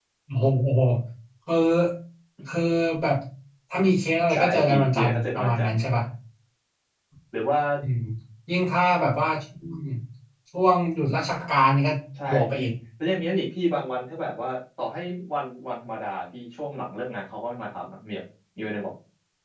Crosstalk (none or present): present